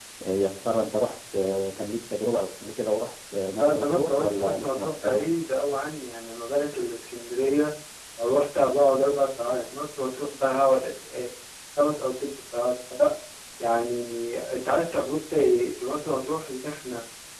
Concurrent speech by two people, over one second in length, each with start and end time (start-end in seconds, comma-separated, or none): 3.6-5.2